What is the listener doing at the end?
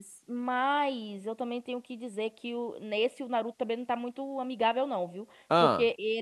listening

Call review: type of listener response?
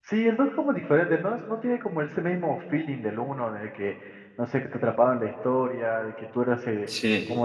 listening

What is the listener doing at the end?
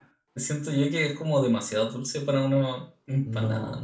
taking over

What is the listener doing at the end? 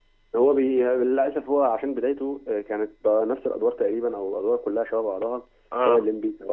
listening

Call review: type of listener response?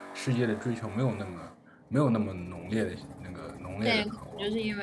taking over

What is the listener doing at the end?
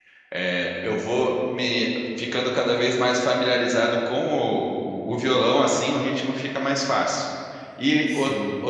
listening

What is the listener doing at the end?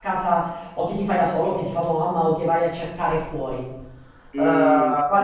taking over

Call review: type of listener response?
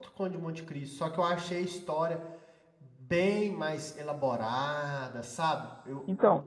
taking over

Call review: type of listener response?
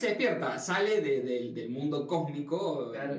taking over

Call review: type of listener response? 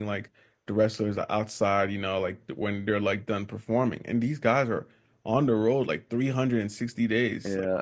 listening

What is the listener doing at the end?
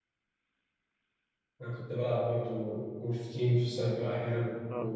taking over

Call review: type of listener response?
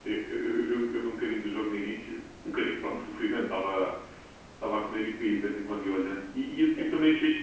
listening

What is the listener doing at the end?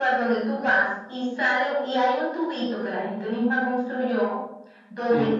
listening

